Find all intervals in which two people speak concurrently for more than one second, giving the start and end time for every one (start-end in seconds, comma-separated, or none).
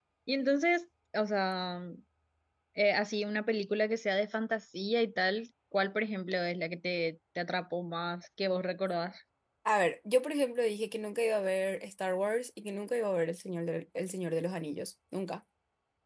none